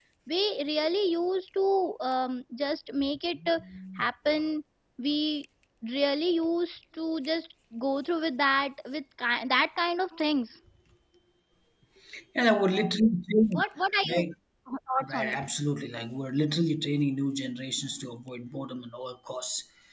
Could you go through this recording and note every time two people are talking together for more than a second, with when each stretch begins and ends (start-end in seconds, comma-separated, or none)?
none